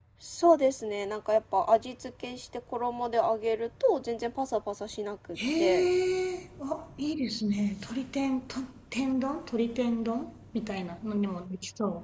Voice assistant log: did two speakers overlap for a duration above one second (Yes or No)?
No